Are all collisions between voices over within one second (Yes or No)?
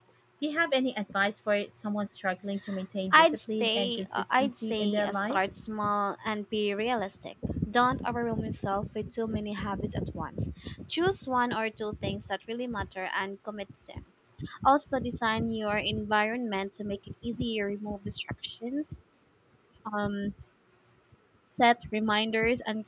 No